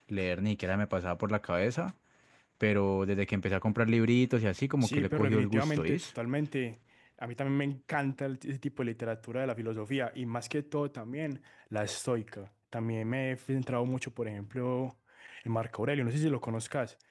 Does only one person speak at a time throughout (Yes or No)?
No